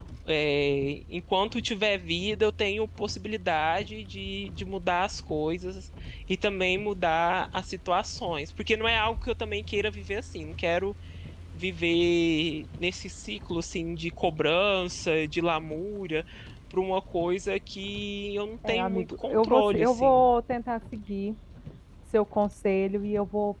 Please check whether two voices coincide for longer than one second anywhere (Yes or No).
Yes